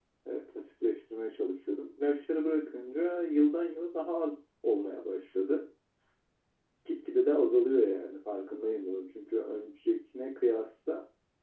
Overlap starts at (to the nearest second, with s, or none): none